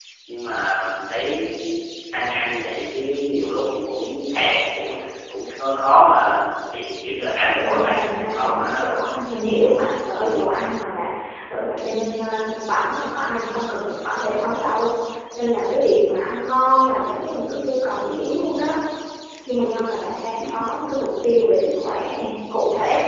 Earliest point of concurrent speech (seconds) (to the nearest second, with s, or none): 8 s